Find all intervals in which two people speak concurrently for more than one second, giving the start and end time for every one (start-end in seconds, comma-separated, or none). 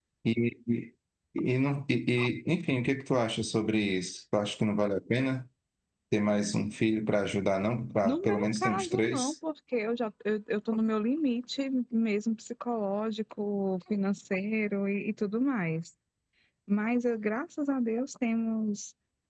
8.1-9.3